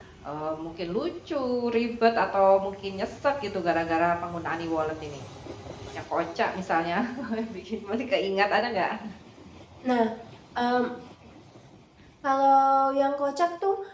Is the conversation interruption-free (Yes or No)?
Yes